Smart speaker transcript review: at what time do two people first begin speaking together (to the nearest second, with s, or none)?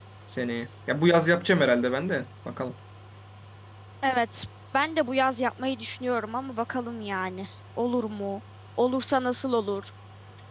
none